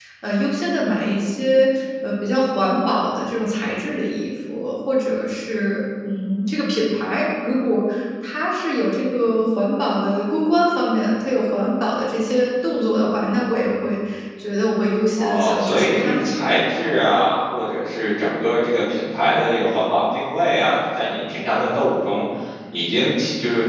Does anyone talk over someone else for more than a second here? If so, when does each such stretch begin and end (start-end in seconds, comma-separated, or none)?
15.2-16.4